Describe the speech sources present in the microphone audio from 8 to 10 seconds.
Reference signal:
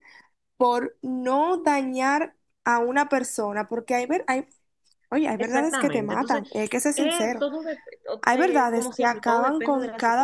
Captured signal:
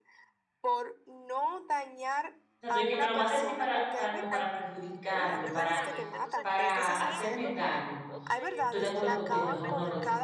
both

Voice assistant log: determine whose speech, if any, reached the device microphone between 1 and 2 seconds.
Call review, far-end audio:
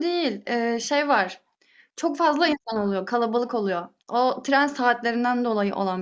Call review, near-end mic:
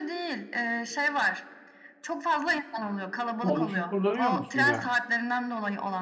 echo only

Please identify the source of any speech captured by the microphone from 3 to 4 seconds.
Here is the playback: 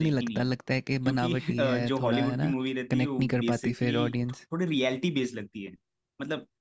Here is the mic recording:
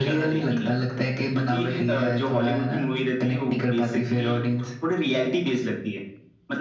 echo only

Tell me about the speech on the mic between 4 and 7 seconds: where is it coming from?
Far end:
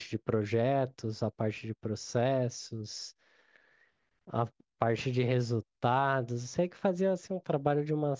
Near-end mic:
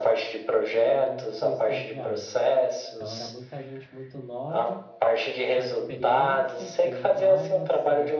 both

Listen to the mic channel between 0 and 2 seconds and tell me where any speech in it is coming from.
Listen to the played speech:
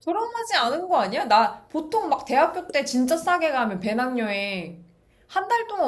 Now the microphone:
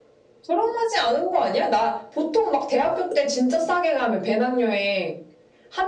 echo only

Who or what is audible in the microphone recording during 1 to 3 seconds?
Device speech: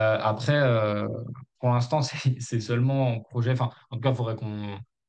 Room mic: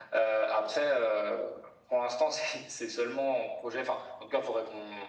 echo only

